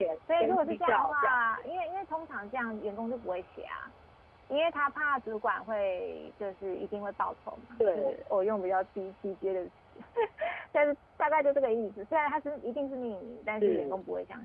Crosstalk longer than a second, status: present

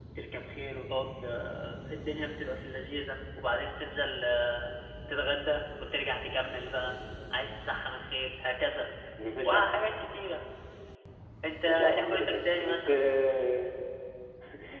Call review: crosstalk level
present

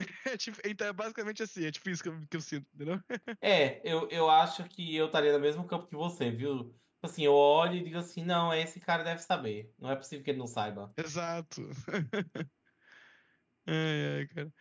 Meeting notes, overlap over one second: none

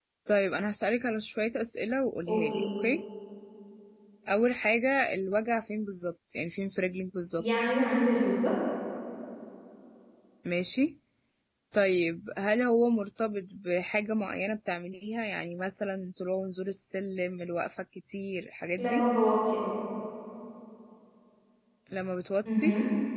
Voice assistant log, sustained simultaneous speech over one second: none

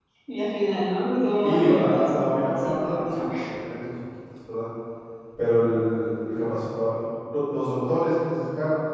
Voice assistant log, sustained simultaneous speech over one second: present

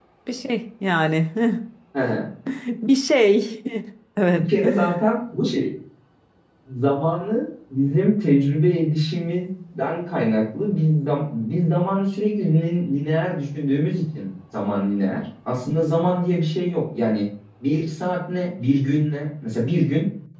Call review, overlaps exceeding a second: none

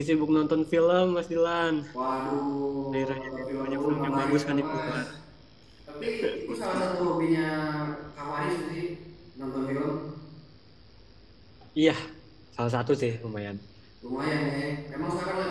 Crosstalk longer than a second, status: present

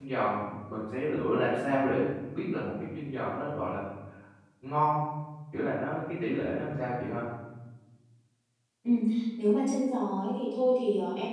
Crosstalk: none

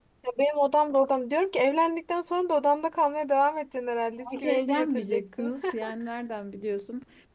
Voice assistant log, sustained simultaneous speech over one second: present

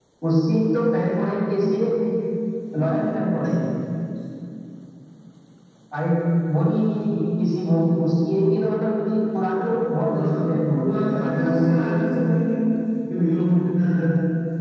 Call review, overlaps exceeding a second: present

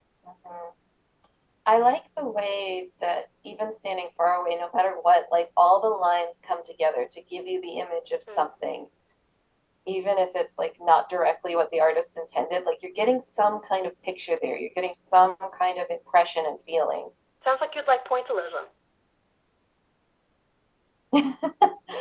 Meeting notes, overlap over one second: none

